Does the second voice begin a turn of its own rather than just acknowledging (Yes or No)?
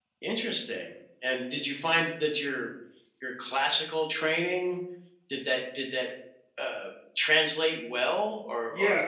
Yes